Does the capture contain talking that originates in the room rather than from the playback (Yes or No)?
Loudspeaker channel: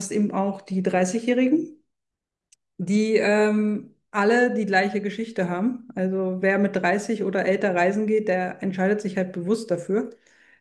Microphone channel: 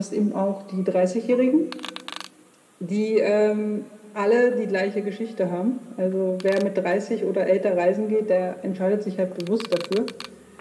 No